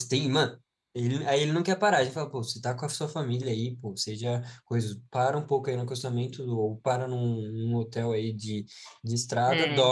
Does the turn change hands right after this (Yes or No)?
No